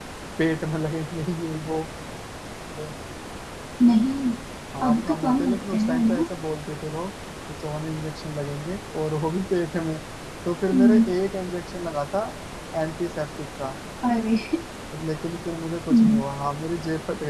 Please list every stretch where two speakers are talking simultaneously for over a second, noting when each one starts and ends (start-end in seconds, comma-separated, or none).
4.9-6.2